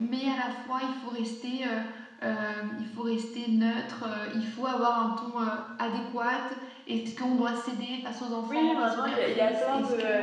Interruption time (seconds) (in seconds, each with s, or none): 8.5 s